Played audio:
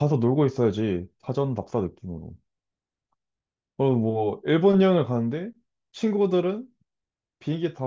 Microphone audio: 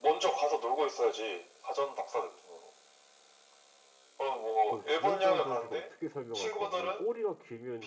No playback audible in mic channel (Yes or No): No